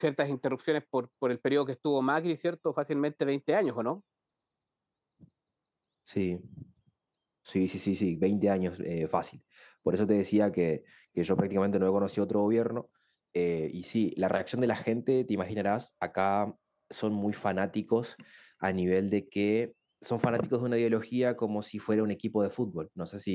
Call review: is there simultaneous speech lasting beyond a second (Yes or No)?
No